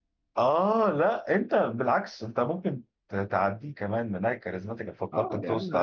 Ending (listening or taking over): taking over